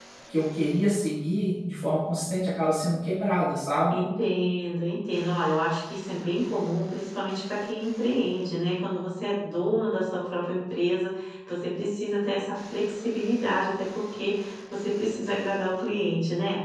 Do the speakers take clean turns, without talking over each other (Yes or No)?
Yes